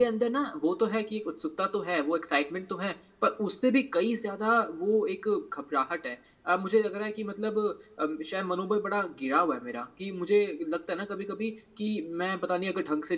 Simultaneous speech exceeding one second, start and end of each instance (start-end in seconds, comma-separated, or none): none